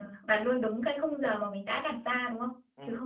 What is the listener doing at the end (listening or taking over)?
taking over